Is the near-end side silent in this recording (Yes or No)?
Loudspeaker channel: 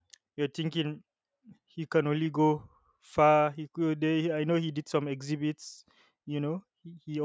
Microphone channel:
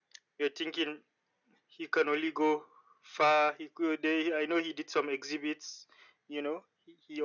Yes